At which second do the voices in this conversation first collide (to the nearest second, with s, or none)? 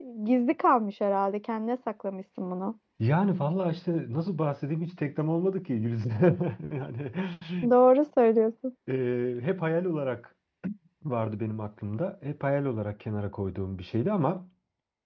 none